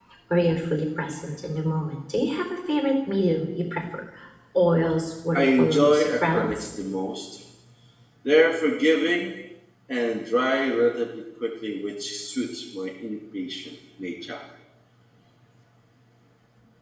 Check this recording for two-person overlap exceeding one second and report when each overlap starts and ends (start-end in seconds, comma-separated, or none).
5.3-6.7